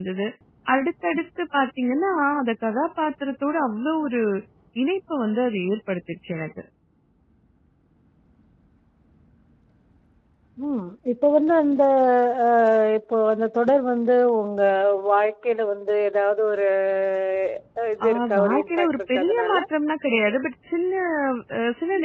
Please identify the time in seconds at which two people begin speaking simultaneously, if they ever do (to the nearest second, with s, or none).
18 s